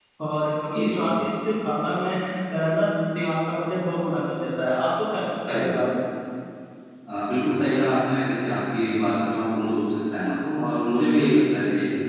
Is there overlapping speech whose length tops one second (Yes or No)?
No